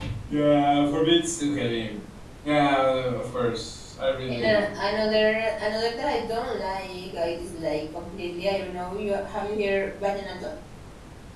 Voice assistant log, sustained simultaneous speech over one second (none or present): none